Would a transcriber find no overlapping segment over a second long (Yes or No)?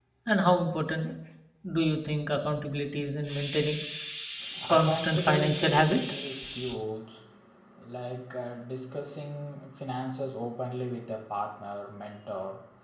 No